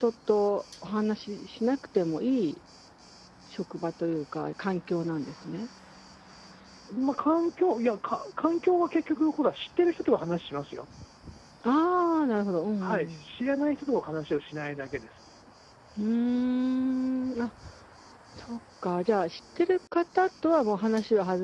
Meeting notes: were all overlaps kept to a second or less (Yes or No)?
Yes